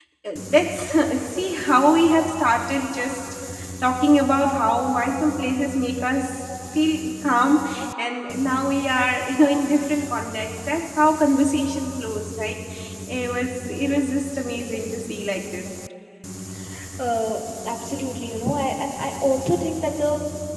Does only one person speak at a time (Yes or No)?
Yes